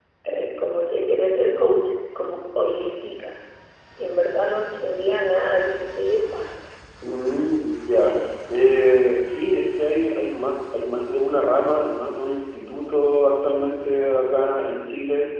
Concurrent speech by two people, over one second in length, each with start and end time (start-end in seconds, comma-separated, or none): none